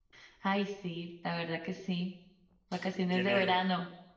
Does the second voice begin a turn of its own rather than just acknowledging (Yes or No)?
Yes